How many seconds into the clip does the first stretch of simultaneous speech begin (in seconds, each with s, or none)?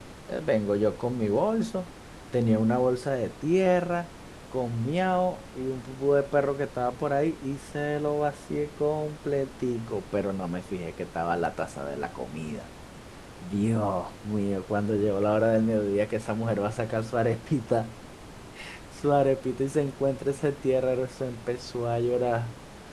none